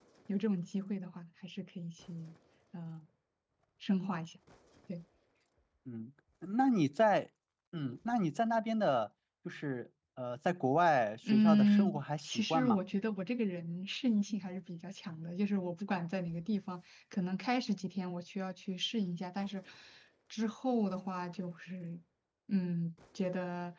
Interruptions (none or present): present